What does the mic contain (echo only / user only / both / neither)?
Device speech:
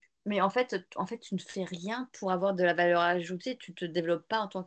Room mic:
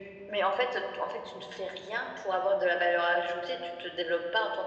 echo only